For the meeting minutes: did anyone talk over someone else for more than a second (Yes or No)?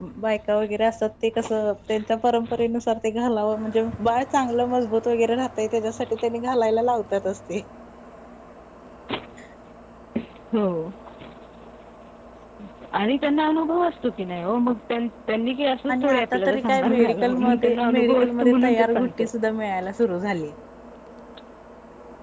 Yes